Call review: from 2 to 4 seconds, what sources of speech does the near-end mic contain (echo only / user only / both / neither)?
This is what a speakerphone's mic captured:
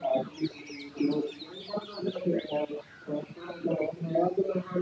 echo only